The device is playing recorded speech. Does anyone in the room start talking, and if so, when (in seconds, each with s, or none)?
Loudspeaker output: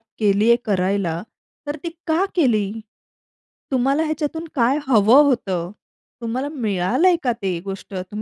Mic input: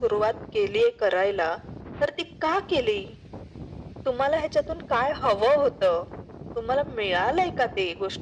none